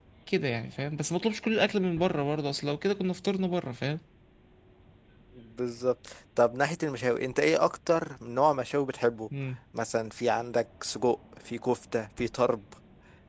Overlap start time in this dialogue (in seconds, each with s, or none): none